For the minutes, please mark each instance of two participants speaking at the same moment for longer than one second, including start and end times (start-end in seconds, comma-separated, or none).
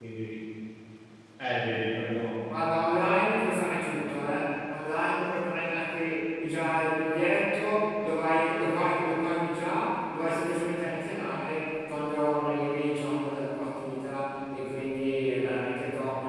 none